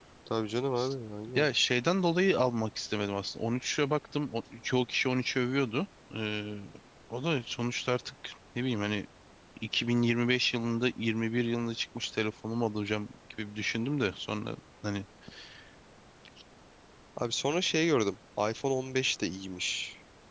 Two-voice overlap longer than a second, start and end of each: none

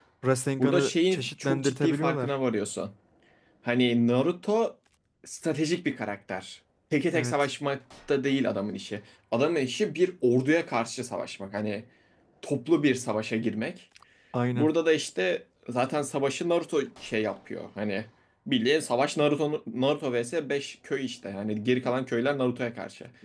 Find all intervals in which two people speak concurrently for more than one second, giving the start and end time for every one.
0.6-2.3

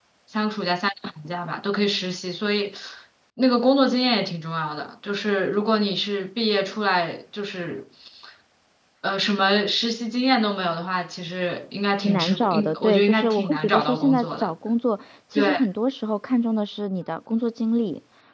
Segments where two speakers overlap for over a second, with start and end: 12.0-14.5

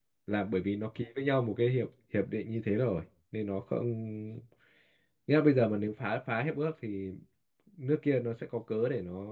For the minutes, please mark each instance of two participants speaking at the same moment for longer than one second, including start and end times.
none

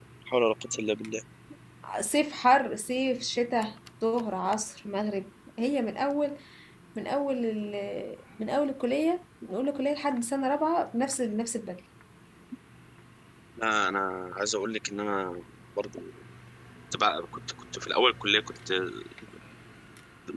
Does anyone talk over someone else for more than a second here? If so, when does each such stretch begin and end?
none

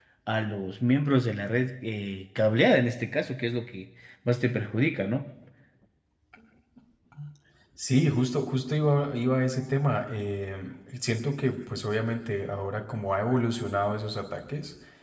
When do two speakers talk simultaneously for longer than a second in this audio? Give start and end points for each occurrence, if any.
none

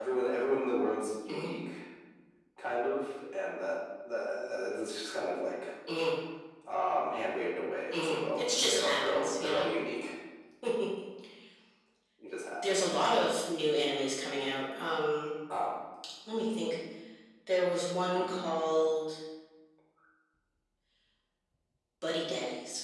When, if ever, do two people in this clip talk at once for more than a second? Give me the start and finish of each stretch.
7.9-9.7

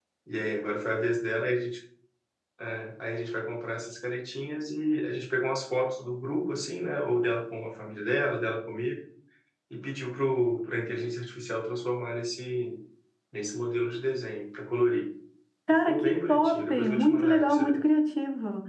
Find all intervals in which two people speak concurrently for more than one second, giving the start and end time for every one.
15.7-17.8

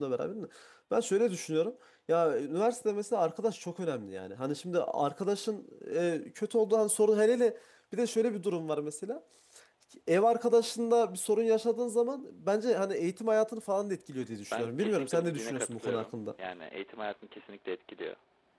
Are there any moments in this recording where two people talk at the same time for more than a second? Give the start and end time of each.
14.5-16.2

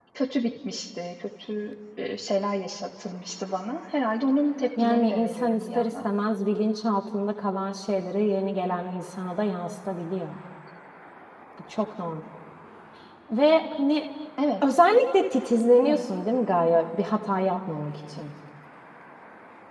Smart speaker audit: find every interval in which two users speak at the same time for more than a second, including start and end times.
4.8-6.0

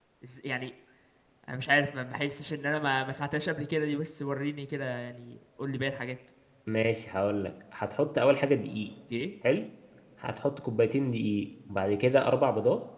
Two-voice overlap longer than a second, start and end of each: none

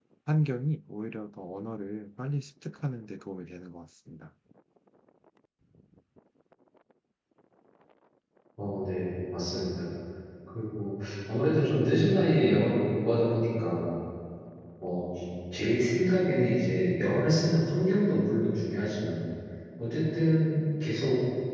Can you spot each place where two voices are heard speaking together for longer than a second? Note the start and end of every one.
none

